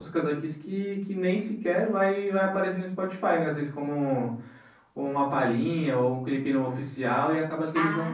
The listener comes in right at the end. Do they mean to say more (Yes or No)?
No